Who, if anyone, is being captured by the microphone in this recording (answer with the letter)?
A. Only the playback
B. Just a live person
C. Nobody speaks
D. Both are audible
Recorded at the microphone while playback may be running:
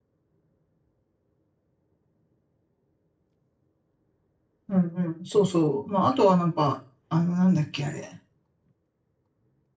B